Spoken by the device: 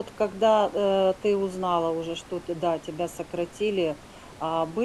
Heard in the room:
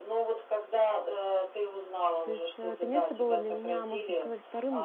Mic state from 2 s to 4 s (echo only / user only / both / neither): both